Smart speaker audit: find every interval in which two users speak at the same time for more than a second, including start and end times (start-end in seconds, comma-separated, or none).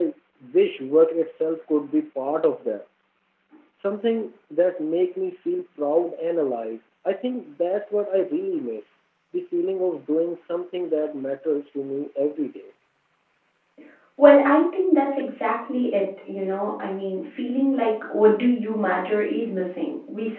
none